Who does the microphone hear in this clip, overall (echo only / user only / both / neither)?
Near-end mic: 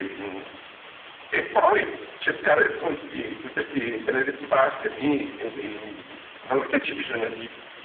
echo only